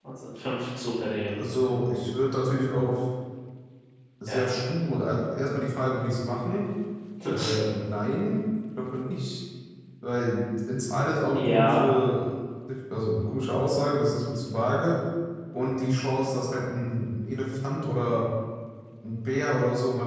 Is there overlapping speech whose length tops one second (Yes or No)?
No